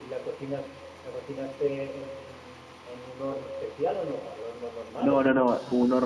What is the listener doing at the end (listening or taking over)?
taking over